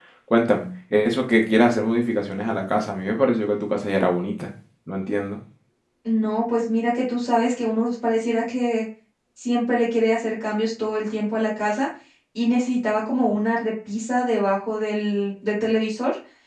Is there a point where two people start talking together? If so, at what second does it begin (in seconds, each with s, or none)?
none